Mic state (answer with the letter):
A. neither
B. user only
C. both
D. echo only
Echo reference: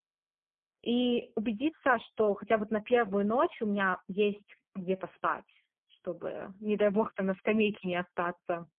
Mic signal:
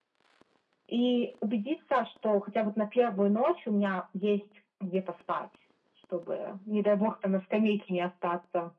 D